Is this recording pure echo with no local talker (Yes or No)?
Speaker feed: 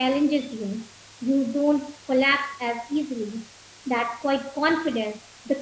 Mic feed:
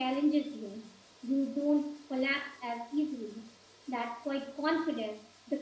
Yes